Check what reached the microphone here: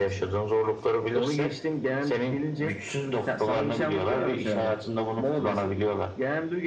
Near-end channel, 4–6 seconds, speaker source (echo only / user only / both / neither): echo only